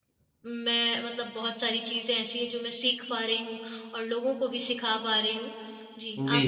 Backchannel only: No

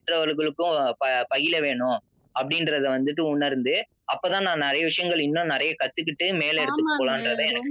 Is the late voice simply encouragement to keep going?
No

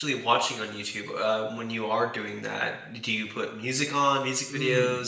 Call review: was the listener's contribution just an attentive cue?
No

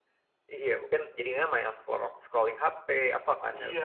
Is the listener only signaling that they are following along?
No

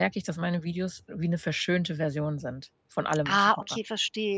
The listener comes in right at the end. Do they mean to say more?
Yes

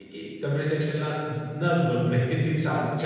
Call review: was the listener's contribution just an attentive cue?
No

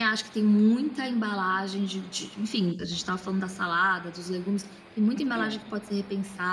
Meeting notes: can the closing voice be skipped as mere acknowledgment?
Yes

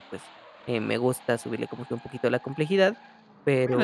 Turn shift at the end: Yes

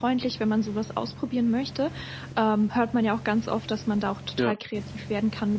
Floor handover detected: No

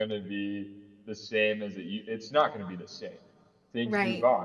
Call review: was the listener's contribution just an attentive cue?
No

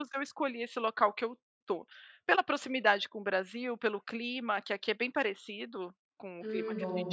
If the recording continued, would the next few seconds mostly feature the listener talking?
No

